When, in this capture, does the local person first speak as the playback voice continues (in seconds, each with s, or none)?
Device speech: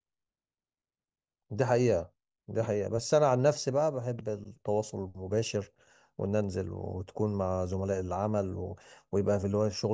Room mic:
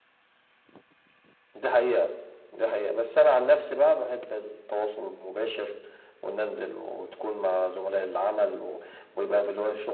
none